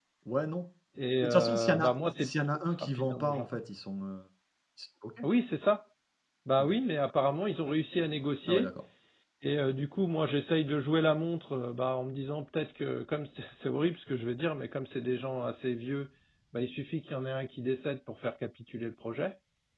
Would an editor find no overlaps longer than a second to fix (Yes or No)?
No